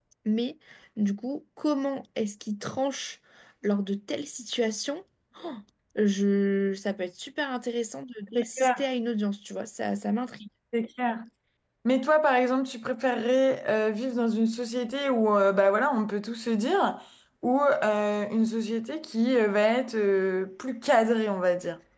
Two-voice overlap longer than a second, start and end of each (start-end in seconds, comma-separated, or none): none